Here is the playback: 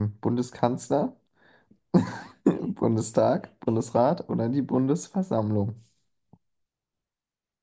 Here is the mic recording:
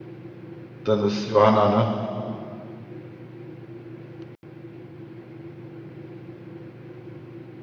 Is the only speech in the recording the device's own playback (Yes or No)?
No